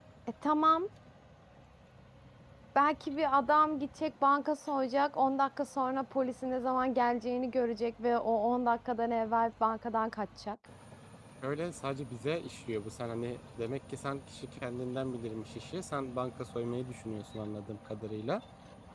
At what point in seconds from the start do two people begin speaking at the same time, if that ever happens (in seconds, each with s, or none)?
none